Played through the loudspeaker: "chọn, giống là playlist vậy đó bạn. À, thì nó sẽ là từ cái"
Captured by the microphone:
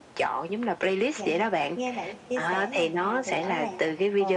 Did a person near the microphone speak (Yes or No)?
Yes